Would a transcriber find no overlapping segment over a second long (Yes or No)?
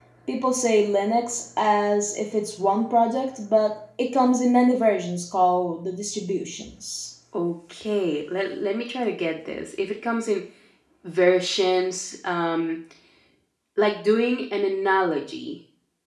Yes